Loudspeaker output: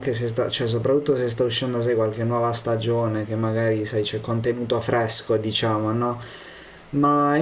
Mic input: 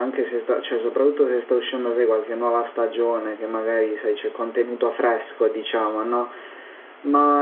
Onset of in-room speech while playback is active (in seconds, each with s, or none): none